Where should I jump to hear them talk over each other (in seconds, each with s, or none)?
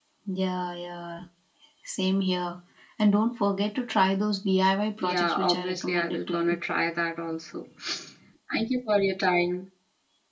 5.0 s